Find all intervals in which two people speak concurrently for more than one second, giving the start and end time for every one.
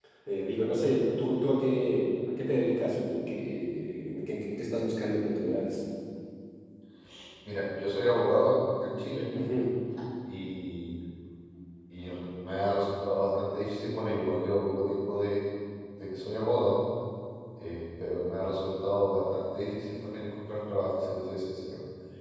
none

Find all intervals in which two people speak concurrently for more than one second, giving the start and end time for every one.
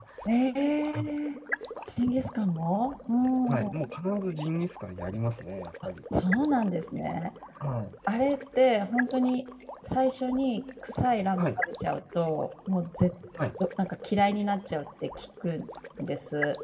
none

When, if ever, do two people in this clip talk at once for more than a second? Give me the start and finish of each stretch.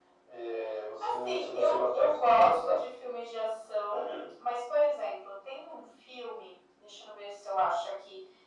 1.0-2.8

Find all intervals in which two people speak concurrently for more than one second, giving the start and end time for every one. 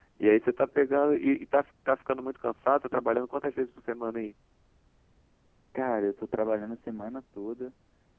none

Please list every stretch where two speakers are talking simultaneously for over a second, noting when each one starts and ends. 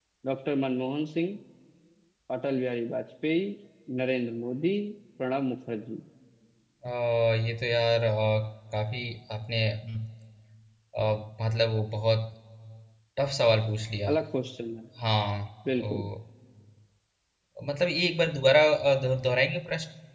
none

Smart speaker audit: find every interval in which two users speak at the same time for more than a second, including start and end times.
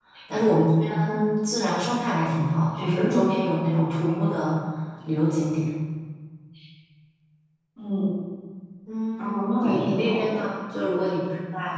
9.2-10.4

